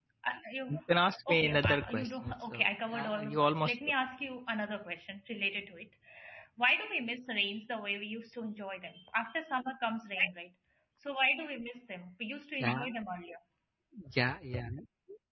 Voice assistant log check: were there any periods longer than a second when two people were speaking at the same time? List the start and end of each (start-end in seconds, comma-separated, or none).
1.3-3.7